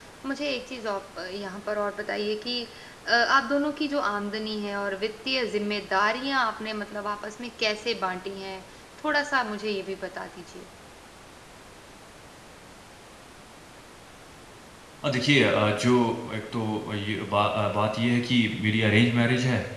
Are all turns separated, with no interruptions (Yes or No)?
Yes